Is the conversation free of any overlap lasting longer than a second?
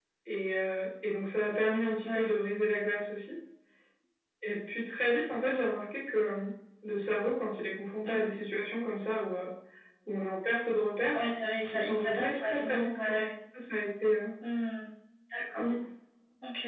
No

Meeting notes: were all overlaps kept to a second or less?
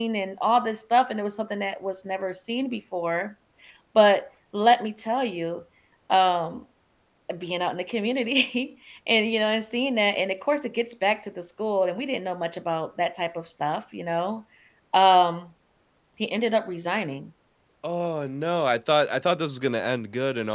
Yes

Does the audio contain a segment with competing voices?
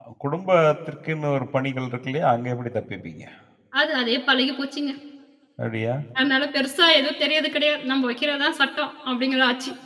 No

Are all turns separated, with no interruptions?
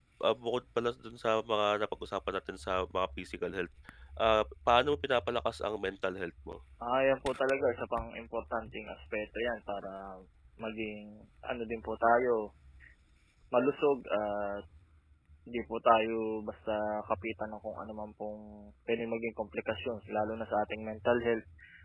Yes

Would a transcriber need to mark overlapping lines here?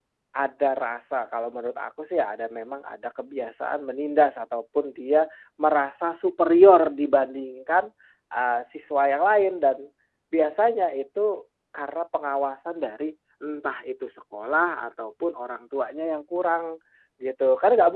No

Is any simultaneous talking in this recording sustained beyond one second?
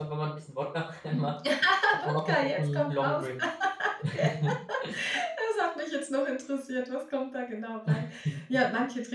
Yes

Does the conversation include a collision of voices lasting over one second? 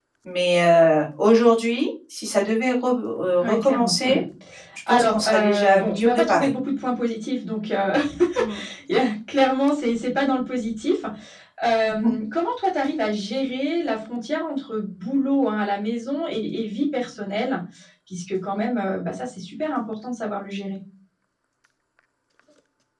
Yes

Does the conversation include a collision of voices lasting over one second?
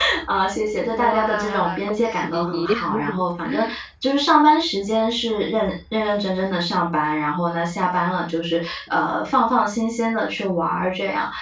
Yes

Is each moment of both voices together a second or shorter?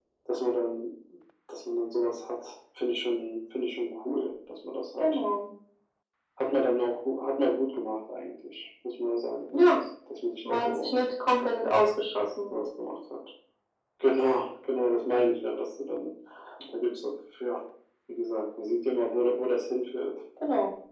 Yes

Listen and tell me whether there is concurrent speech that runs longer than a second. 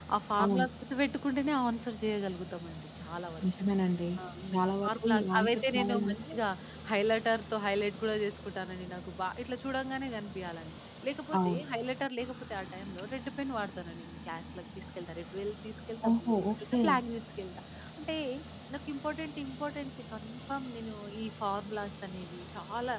Yes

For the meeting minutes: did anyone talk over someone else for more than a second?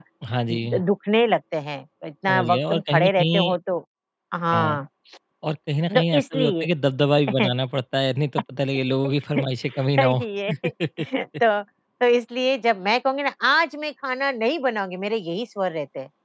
Yes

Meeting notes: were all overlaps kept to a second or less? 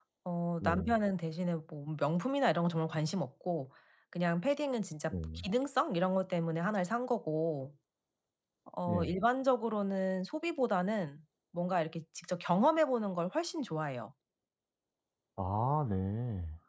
Yes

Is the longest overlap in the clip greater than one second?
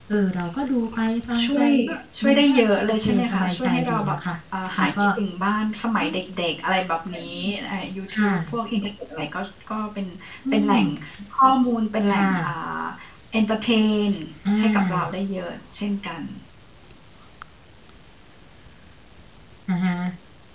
Yes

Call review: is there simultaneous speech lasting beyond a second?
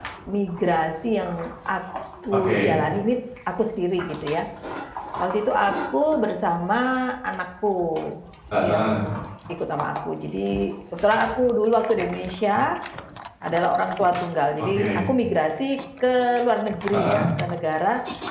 No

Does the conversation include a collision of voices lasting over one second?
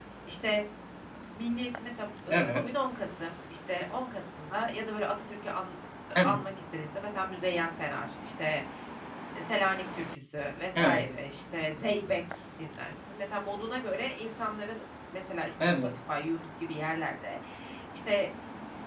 No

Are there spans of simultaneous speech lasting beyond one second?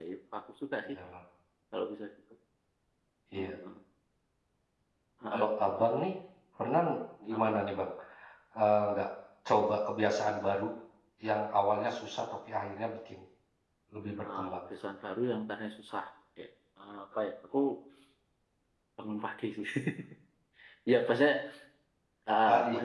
No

